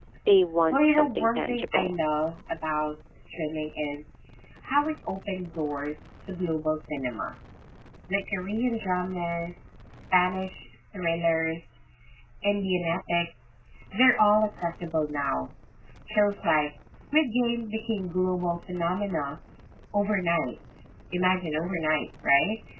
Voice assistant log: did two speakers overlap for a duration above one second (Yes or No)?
Yes